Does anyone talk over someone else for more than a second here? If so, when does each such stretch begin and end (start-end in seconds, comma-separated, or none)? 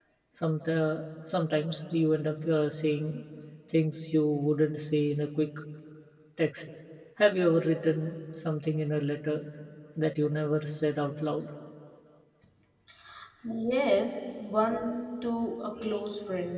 none